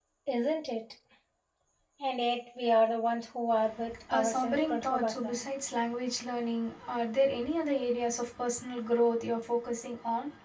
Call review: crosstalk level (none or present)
present